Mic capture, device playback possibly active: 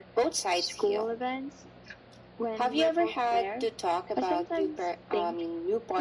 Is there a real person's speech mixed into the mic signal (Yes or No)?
No